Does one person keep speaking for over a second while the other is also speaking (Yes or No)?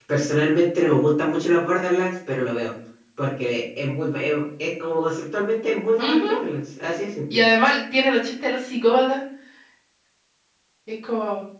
No